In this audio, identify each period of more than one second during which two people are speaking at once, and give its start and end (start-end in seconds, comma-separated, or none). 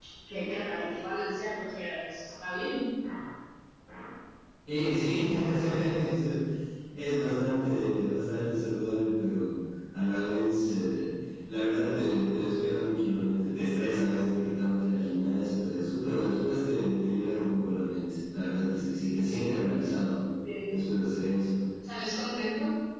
none